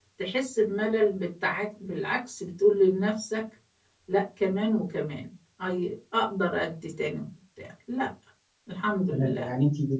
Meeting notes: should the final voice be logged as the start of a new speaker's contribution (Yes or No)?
Yes